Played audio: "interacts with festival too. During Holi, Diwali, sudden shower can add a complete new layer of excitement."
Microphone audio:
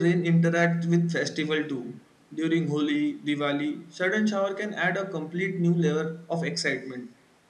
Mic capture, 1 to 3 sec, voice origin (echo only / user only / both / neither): echo only